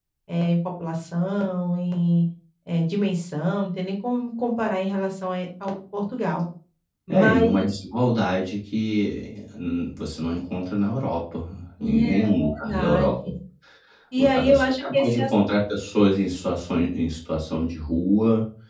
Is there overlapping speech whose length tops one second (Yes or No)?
Yes